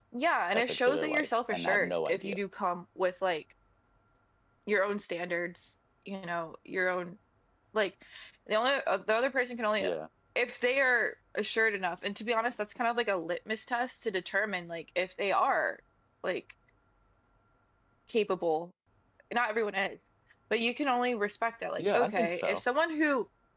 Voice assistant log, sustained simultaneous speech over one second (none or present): present